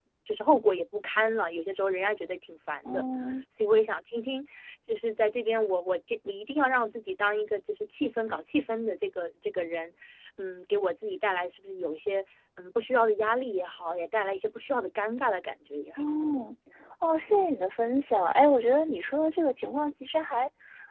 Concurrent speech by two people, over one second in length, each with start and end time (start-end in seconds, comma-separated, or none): none